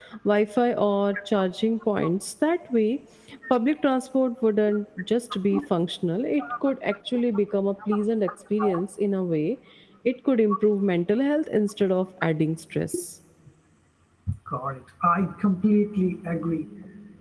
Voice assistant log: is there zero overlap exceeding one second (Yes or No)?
Yes